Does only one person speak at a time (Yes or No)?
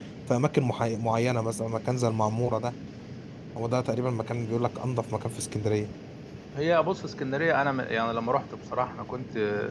Yes